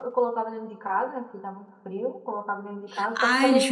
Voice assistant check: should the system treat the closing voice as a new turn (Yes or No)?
Yes